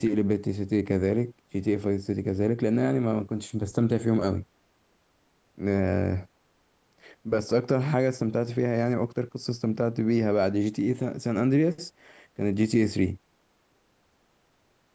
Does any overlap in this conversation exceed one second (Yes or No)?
No